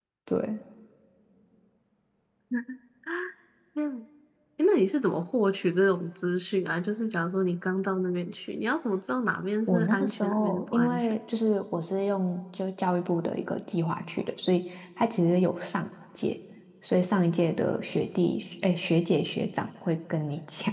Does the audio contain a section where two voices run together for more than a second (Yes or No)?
Yes